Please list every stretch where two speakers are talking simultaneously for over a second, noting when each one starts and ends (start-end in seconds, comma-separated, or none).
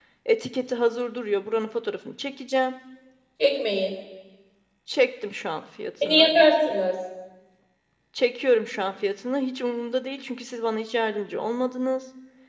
none